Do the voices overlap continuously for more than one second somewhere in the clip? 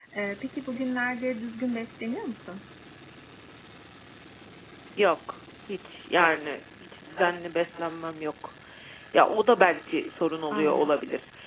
No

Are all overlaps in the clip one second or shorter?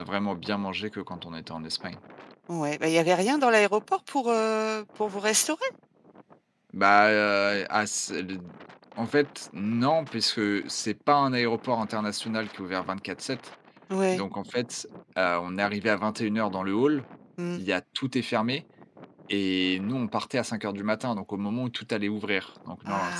Yes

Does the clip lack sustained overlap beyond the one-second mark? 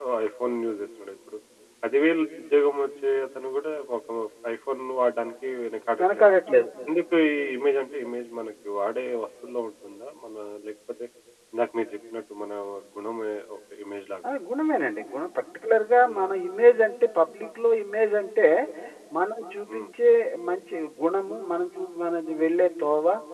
Yes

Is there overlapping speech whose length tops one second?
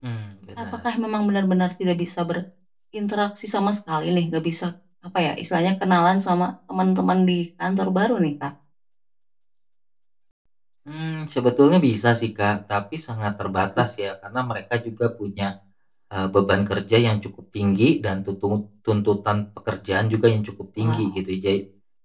No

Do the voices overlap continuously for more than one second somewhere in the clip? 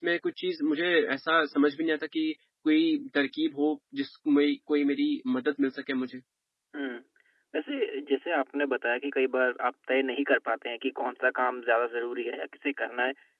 No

